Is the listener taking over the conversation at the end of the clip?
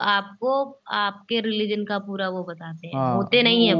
Yes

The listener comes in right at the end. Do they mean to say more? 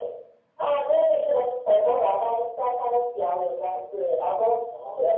No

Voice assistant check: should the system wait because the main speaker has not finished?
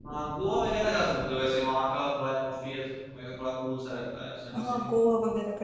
No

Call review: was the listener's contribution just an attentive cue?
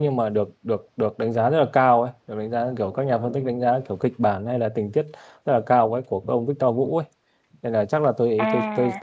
Yes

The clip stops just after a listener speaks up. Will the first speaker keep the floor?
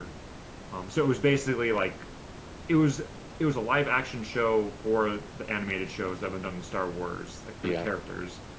Yes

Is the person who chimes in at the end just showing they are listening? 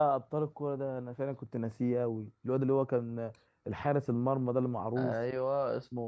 No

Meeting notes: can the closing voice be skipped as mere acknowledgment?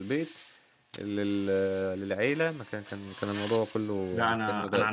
No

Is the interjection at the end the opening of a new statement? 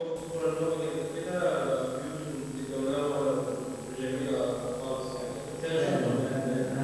Yes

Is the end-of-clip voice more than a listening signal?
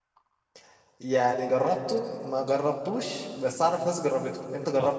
Yes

